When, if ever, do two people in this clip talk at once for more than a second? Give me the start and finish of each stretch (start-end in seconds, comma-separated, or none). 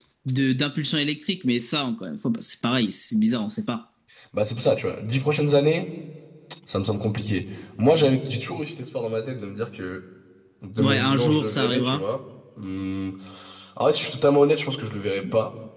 10.8-12.0